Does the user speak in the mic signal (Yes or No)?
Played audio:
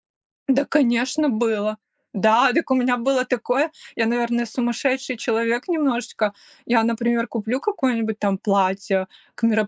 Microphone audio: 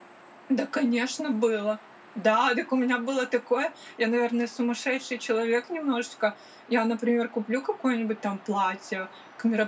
No